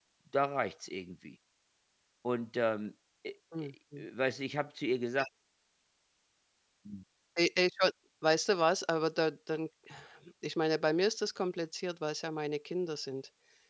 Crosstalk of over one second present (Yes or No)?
No